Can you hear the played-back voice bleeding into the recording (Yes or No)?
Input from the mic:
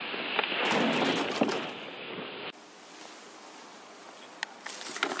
No